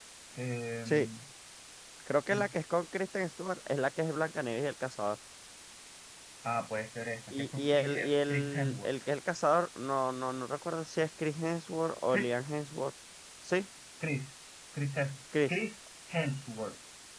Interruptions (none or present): present